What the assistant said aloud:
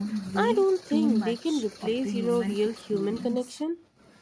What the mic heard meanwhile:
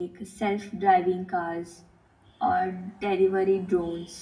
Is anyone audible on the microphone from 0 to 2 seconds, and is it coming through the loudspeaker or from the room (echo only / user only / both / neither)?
user only